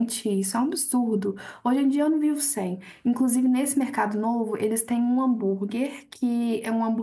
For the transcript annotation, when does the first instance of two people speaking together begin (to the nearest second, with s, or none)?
none